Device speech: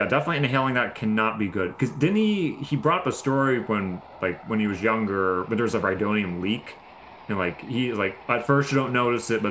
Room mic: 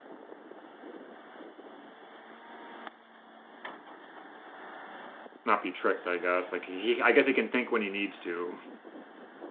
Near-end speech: present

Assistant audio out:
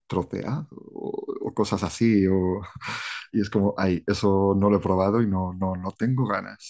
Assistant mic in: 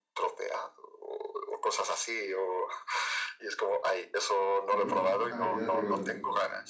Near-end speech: present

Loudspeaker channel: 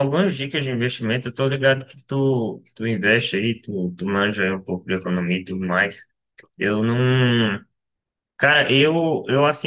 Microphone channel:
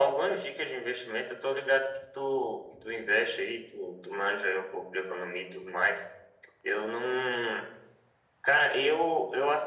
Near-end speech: none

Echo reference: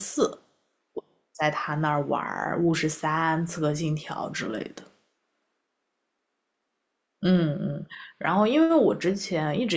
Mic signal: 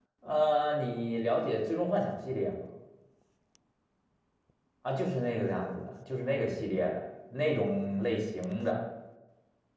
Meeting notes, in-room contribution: present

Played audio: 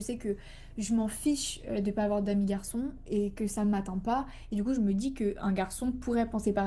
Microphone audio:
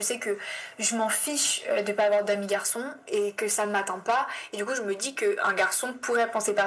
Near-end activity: none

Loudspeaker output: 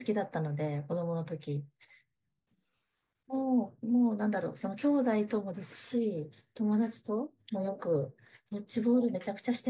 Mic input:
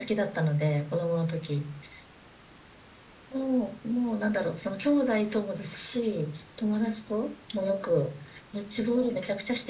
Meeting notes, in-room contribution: none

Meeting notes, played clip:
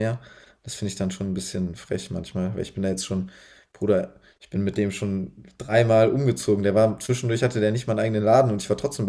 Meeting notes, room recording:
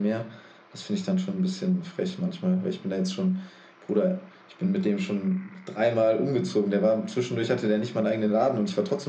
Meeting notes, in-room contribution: none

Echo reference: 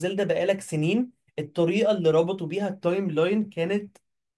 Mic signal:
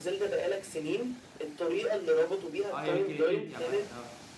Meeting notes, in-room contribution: present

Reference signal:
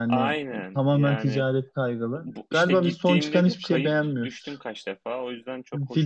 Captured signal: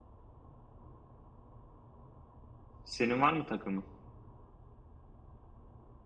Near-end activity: present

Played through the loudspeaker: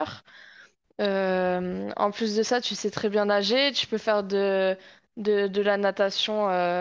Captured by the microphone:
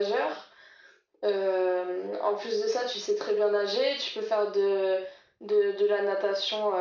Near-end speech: none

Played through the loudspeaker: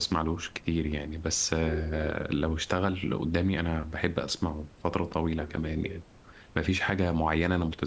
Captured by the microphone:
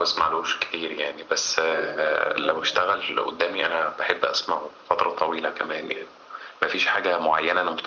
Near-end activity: present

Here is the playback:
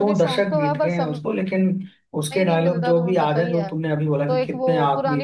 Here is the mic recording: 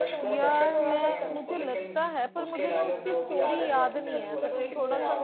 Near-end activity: present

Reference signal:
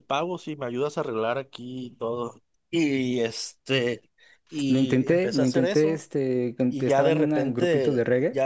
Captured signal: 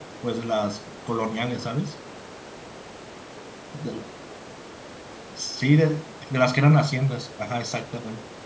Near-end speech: present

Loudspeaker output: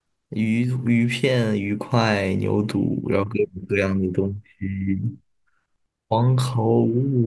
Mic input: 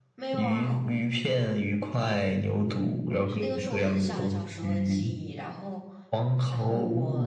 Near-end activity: present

